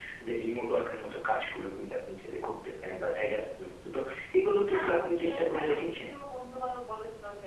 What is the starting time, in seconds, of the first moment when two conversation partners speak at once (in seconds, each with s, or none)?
4.7 s